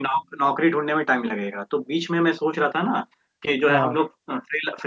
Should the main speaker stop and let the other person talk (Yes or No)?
No